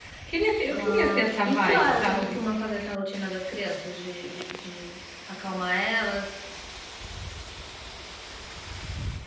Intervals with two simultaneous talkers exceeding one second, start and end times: 0.7-2.4

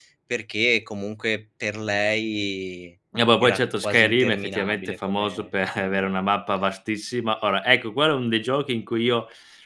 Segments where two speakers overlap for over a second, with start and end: 3.4-6.1

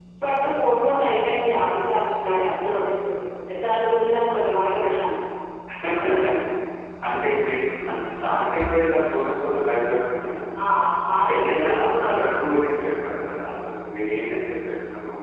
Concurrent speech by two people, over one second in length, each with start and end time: 11.3-12.6

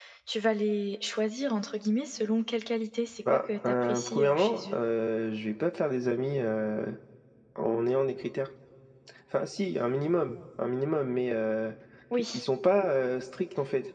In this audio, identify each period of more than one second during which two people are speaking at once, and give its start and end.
3.3-4.8

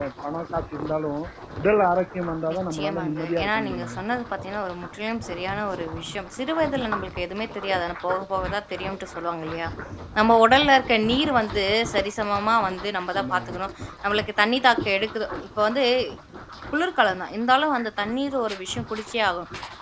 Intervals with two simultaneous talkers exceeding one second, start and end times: 2.5-4.0

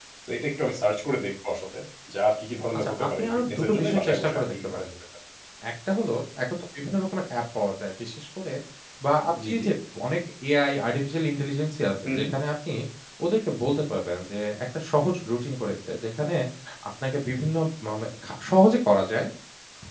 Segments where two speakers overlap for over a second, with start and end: 2.8-4.8

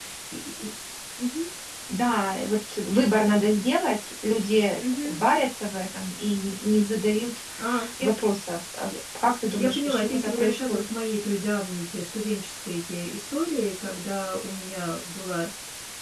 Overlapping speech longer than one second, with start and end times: 9.6-10.8

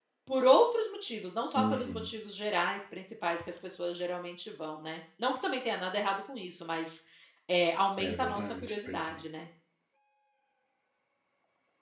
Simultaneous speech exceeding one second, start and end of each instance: 8.0-9.2

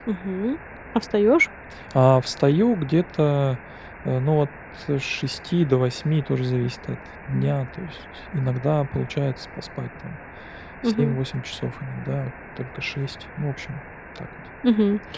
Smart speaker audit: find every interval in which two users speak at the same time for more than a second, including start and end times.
none

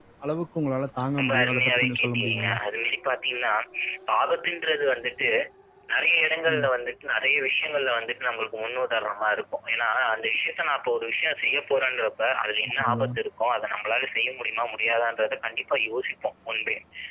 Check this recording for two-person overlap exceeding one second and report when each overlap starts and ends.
1.2-2.6

